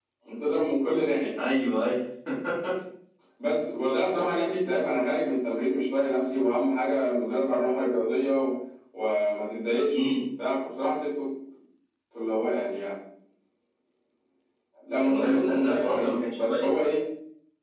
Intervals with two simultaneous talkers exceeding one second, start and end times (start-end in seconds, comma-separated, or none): 15.0-16.7